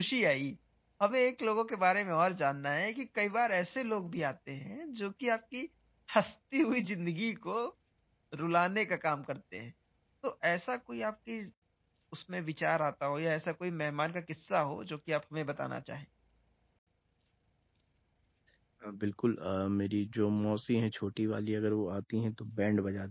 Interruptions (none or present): none